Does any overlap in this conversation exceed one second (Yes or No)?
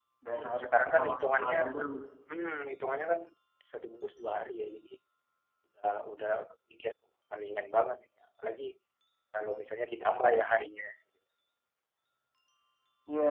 Yes